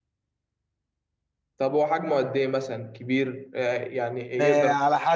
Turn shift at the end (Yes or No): Yes